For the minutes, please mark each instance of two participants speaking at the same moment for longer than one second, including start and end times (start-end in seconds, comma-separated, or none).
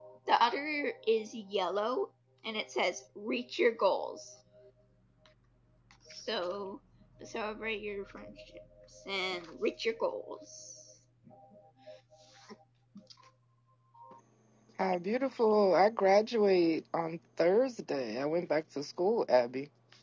none